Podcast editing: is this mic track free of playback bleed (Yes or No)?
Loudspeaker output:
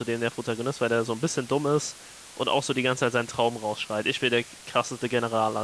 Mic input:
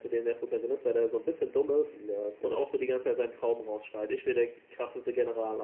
No